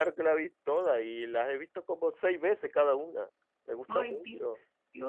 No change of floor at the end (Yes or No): No